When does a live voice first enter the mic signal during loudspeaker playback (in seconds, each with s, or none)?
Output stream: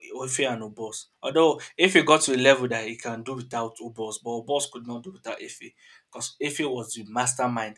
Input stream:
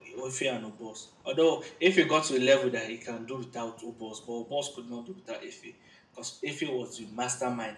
none